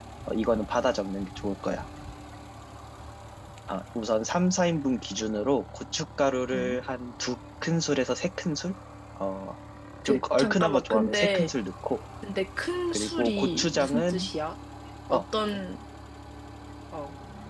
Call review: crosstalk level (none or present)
present